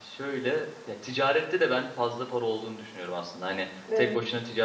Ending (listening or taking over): listening